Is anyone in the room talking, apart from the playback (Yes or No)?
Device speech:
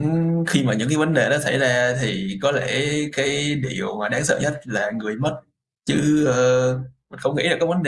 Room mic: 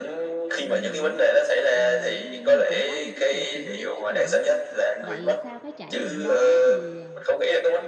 Yes